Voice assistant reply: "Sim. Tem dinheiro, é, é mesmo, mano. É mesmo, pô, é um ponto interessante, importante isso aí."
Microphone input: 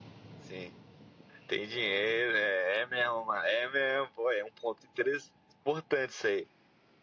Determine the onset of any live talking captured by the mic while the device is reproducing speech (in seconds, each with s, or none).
none